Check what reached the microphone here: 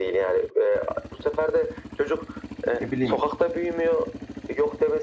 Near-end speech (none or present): present